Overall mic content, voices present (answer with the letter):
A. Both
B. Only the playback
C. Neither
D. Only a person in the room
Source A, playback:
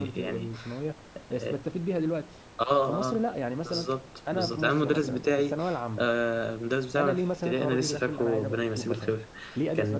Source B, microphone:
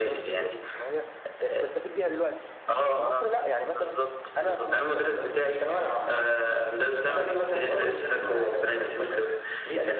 B